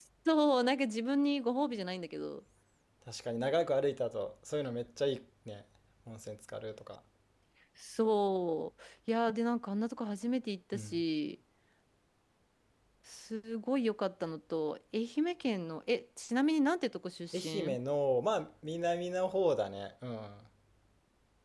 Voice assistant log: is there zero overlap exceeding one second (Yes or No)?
Yes